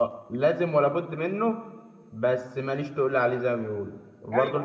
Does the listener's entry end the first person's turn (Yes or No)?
No